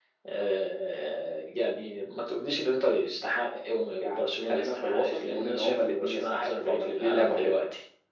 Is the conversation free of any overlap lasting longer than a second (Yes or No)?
No